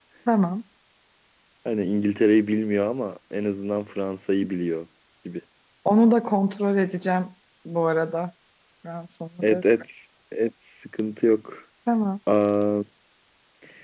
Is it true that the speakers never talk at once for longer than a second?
Yes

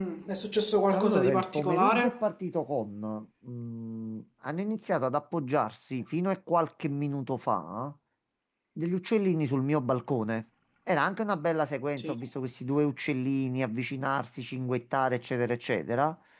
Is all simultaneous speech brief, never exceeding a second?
No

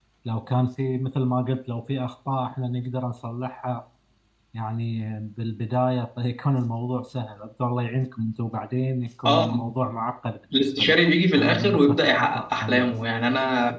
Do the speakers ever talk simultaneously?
Yes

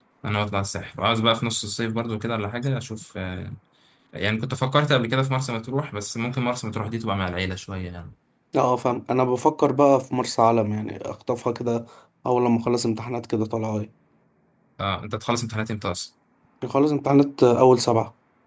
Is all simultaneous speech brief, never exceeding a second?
Yes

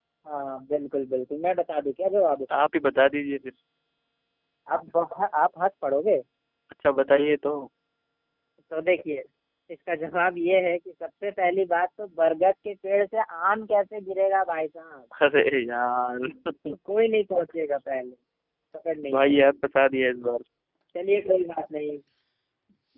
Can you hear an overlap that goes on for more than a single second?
No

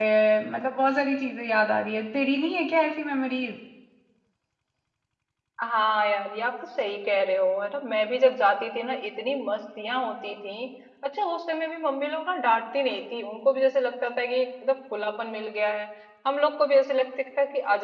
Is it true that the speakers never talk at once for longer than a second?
Yes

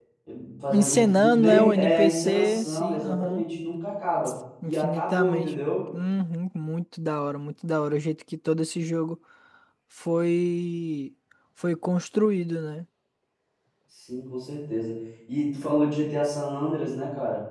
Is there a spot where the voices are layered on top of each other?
Yes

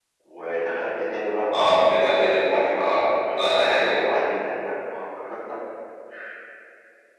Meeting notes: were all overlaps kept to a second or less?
No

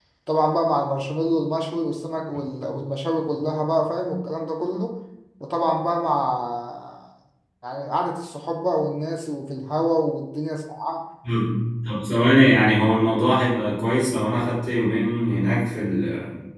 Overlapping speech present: No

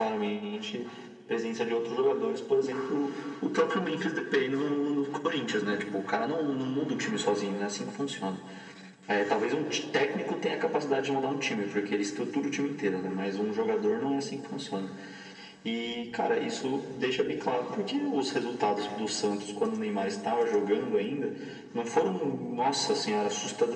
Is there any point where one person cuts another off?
No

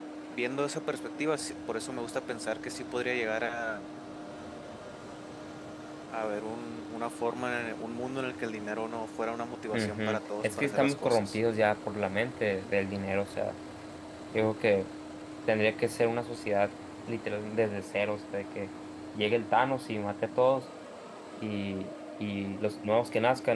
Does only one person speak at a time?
No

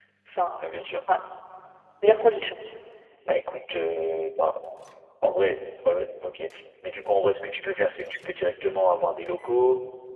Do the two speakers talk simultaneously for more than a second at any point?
No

